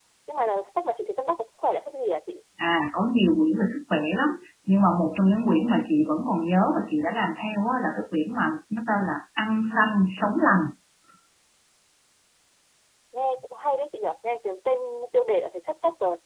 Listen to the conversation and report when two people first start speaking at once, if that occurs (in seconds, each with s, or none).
none